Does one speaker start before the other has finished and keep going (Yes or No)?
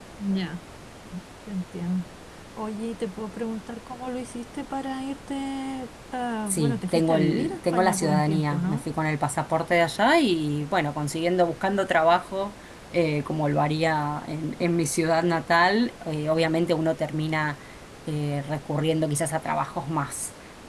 Yes